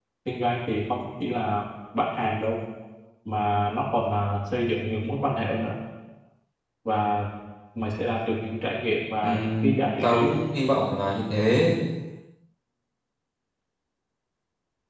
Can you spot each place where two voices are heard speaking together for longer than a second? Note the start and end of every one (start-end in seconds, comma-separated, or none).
9.2-10.4